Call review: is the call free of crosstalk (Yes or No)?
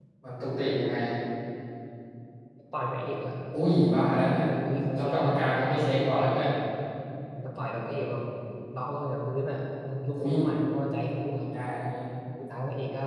No